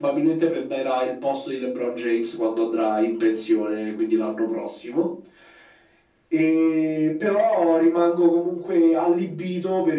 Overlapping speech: No

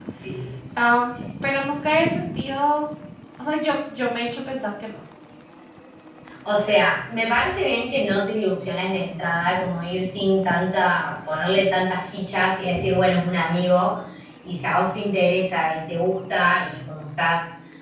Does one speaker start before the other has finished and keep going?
No

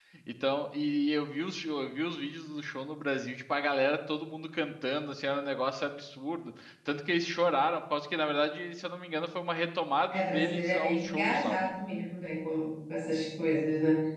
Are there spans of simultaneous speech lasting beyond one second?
Yes, from 10.1 s

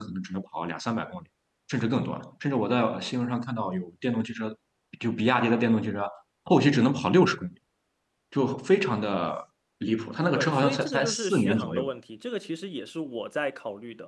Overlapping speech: Yes, from 10.3 s

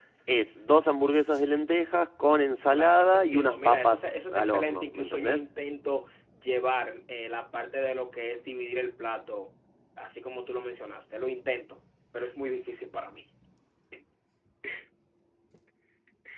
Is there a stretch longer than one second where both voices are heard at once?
Yes, from 2.7 s

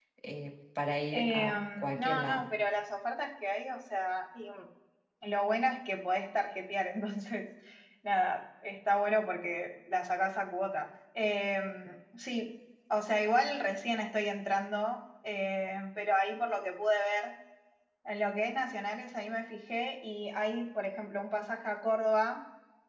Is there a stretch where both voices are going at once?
Yes, from 1.1 s

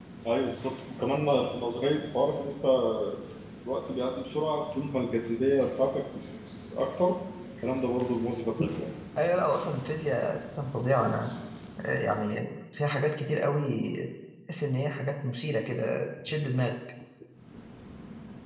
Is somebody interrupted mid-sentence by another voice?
No

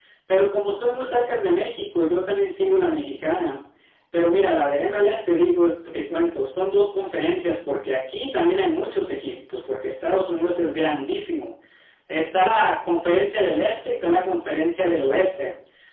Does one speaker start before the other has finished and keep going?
No

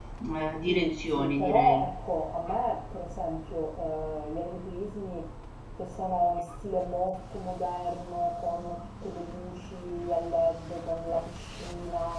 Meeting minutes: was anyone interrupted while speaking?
Yes, from 0.7 s

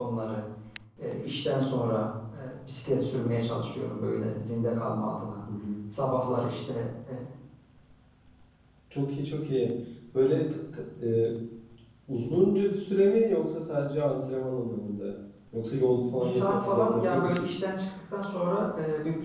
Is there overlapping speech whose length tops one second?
Yes, from 16.1 s

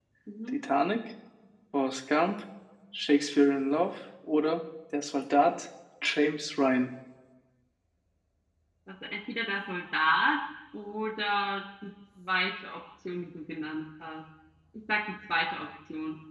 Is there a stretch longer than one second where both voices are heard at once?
No

